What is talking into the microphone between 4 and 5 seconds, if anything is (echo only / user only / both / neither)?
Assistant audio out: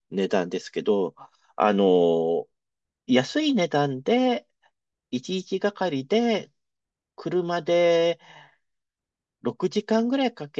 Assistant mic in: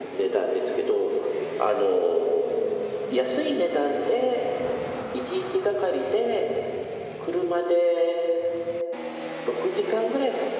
echo only